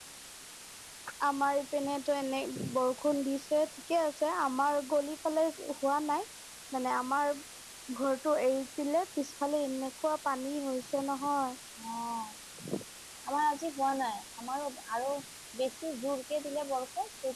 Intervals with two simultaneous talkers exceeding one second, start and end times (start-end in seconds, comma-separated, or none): none